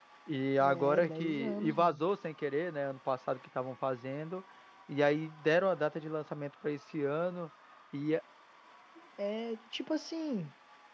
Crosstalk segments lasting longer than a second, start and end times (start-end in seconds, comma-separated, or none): 0.6-2.0